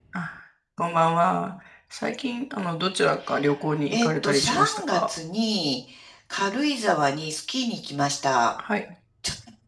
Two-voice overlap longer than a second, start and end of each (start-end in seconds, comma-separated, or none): 3.9-5.1